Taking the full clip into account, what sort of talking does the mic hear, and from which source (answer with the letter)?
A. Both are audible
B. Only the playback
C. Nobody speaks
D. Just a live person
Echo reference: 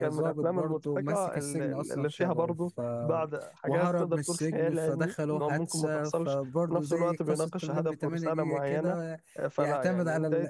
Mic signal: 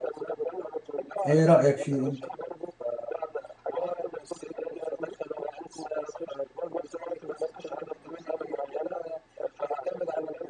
A